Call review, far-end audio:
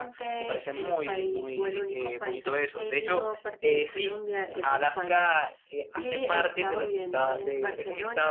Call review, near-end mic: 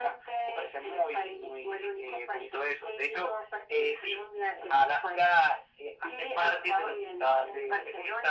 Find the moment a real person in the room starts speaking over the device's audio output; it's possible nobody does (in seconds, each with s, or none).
none